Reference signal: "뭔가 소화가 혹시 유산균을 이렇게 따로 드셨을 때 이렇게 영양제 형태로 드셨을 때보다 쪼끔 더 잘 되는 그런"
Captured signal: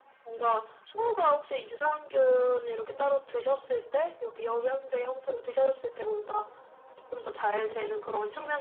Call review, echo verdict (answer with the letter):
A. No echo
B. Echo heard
B